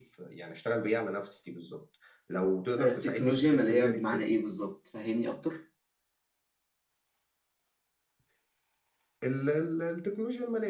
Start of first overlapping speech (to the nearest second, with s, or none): 3 s